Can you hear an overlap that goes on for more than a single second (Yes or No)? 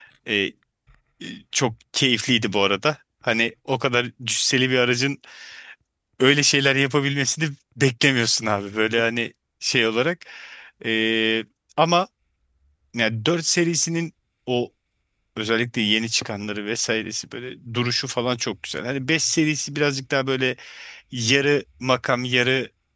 No